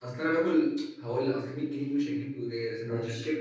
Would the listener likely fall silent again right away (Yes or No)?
Yes